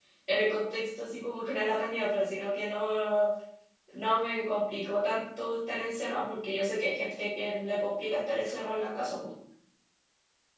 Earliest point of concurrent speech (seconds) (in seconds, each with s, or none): none